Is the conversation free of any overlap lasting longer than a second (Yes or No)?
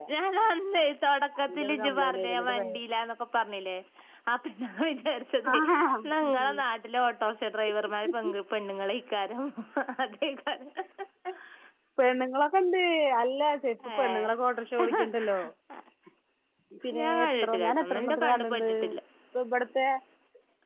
No